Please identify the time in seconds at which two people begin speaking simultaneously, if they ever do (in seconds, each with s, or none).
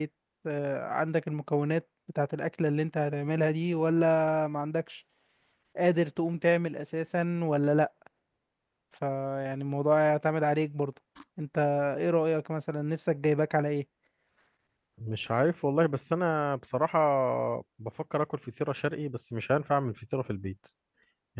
none